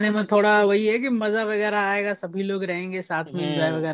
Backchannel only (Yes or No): No